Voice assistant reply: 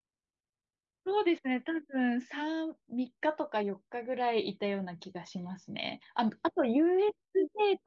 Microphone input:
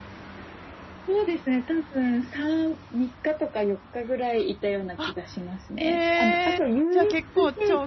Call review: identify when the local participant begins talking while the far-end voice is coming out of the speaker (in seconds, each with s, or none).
5.0 s